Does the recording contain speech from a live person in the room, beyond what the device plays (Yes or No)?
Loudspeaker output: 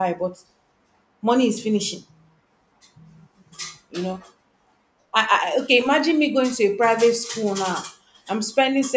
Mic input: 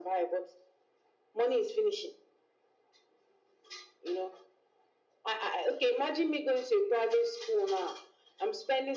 No